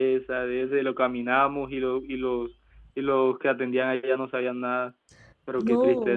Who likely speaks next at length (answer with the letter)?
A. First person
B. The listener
B